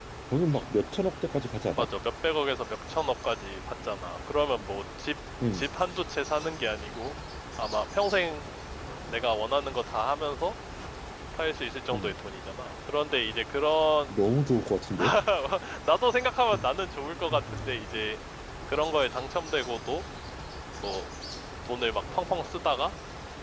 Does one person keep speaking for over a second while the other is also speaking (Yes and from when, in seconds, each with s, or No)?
No